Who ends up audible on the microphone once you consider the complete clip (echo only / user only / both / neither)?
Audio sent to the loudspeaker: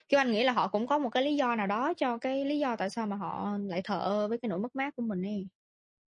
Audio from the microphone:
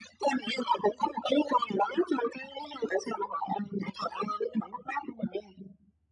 echo only